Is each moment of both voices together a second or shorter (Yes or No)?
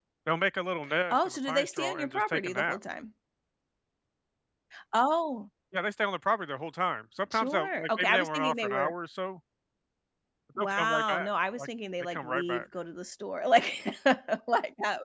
No